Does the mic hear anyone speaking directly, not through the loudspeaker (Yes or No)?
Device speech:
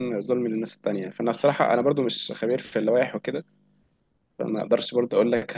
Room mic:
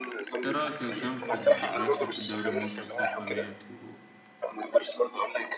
Yes